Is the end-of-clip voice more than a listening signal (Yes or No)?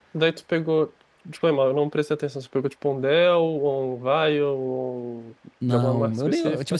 Yes